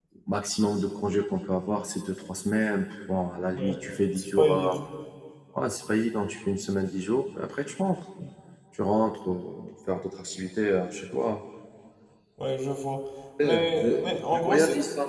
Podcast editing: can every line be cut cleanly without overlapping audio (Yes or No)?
No